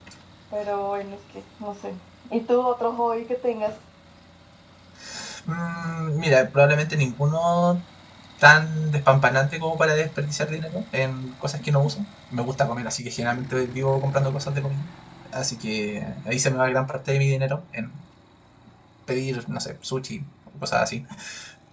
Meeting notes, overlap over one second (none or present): none